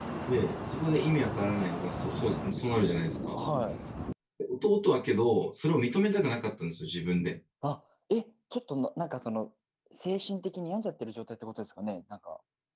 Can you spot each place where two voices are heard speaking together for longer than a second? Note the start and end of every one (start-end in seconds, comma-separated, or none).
none